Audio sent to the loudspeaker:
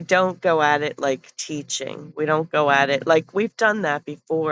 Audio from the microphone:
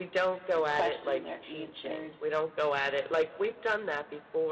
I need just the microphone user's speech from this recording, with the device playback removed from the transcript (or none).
your questions are answered.